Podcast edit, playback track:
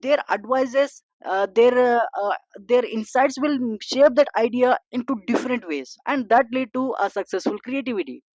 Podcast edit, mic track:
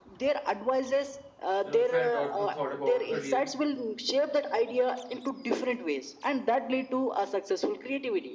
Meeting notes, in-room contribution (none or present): present